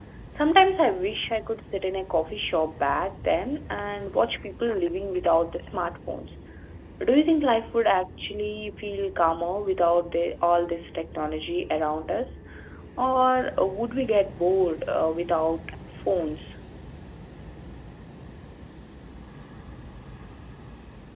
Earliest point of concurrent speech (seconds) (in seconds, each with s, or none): none